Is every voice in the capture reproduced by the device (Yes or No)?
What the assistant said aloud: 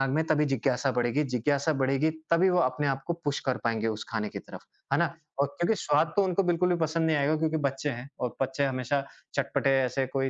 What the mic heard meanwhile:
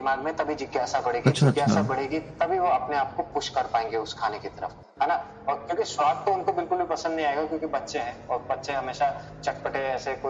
No